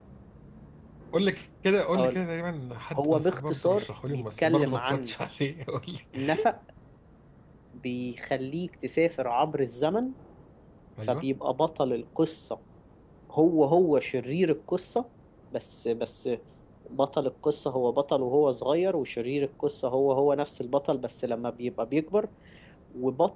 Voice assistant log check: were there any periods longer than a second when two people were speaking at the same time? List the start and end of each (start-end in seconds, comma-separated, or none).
2.9-5.1